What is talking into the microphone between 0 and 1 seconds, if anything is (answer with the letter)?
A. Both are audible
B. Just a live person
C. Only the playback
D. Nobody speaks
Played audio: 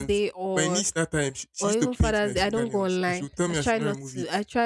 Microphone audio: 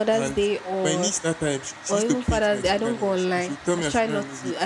C